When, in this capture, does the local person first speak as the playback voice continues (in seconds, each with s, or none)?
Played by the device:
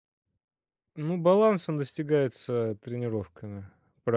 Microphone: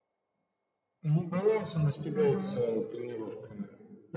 2.1 s